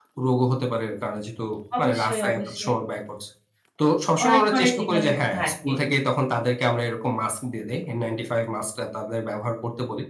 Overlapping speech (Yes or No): Yes